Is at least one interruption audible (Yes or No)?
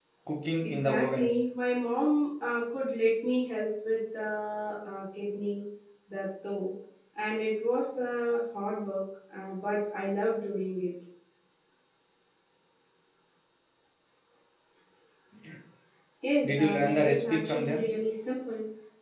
Yes